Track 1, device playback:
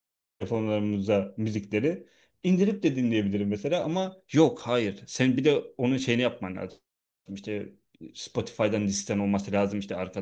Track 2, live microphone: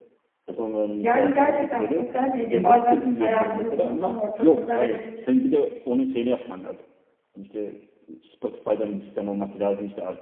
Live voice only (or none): Yani gerçekten sosyal medya bazen hayatımızın tam ortasında ve